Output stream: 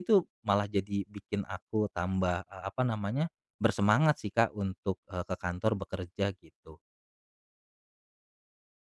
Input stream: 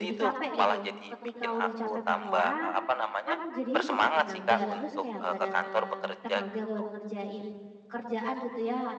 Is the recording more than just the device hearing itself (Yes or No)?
Yes